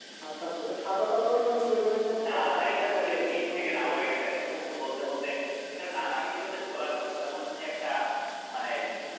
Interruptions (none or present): present